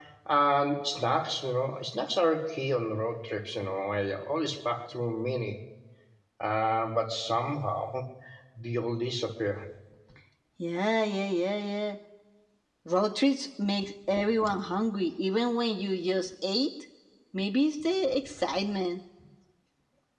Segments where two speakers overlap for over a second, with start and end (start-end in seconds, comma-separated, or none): none